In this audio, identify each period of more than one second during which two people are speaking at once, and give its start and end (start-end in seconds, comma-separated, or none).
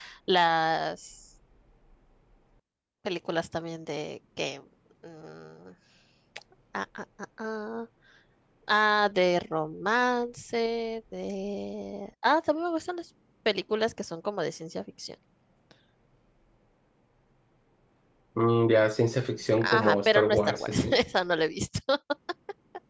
19.6-21.0